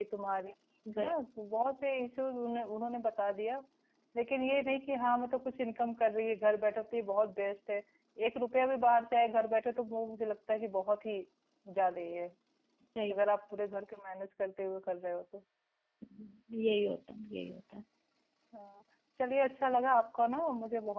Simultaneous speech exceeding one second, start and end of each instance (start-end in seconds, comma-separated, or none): none